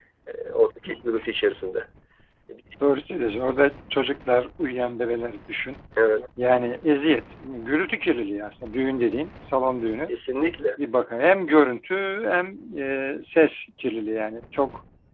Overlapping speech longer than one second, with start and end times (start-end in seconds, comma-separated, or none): none